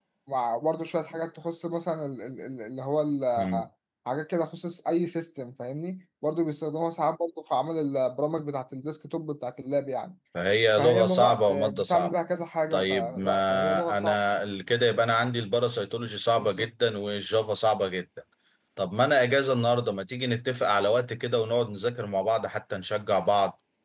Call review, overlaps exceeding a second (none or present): present